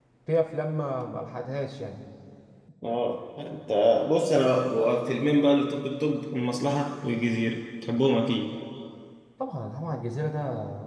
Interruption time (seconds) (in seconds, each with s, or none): none